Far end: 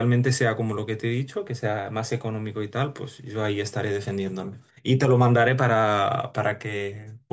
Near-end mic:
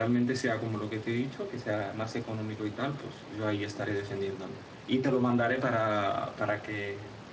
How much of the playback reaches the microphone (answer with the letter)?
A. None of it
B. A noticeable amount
B